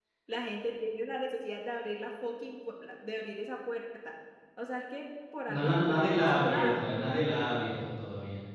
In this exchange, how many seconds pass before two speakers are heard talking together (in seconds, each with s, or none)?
5.5 s